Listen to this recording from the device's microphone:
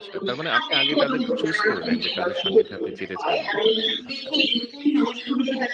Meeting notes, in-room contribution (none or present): present